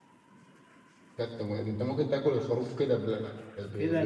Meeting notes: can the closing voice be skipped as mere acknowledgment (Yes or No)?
No